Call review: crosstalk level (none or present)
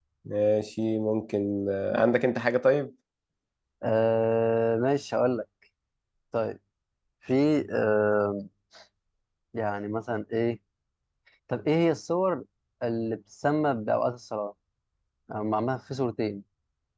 none